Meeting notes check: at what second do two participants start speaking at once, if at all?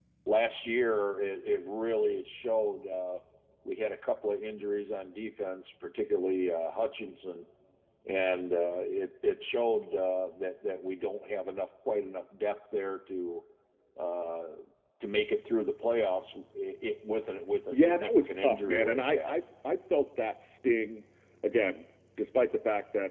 17.7 s

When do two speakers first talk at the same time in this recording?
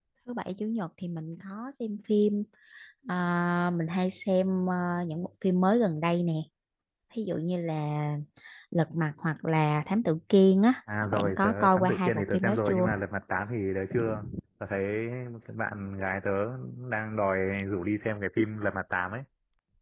11.0 s

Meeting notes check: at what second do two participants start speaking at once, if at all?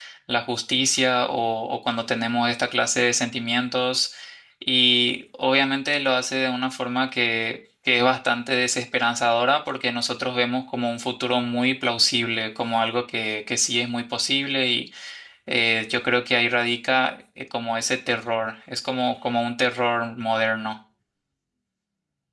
none

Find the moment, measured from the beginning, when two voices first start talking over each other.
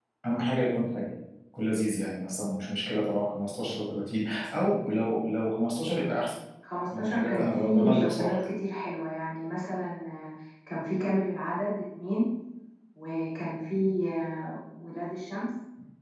7.0 s

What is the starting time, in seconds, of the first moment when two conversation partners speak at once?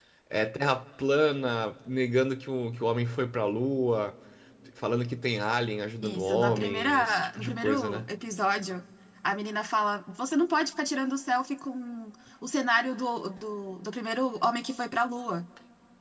6.0 s

